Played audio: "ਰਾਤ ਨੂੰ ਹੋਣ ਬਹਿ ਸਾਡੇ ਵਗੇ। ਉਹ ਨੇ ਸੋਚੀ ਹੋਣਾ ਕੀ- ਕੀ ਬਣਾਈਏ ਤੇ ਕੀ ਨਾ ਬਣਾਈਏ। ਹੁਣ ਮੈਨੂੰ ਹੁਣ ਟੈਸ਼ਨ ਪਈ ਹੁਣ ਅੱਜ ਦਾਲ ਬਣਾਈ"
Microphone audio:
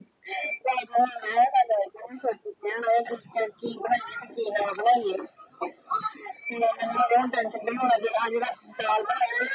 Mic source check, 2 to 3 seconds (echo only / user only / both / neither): echo only